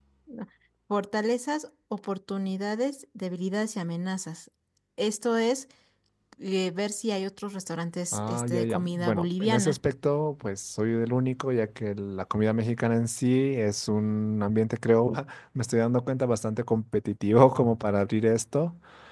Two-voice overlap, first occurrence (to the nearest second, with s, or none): 8 s